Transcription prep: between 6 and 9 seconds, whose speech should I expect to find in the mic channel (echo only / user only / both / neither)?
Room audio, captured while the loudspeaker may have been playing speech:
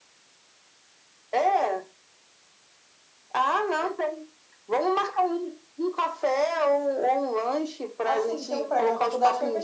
both